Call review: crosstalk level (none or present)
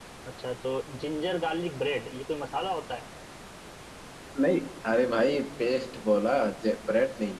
none